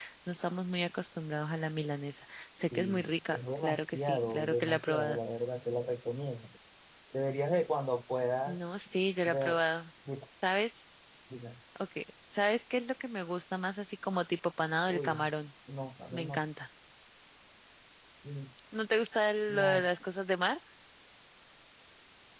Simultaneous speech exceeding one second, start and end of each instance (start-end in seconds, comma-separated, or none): 2.6-5.2